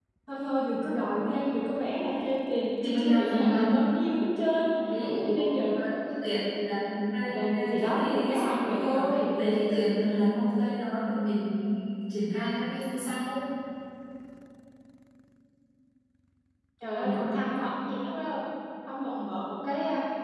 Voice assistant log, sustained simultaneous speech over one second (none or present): present